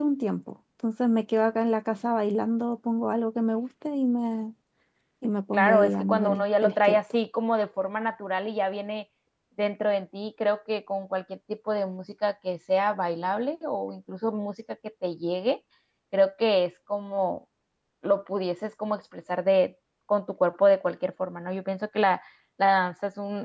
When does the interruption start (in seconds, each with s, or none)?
5.5 s